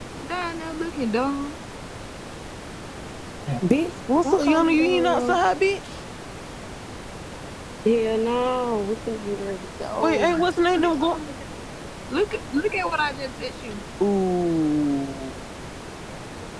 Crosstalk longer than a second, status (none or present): present